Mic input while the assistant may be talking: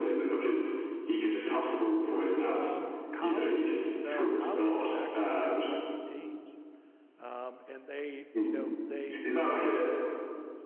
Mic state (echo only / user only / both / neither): both